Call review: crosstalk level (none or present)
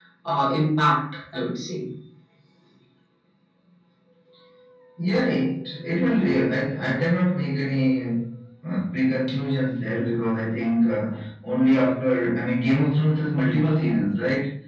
none